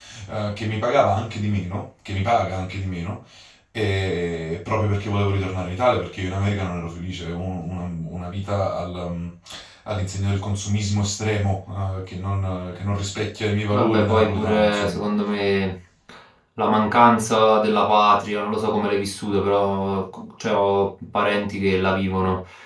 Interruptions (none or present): present